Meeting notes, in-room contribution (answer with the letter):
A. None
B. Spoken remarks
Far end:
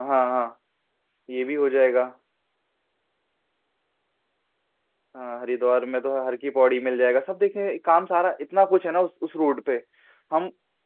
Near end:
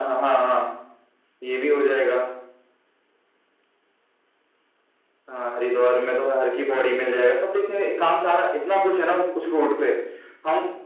A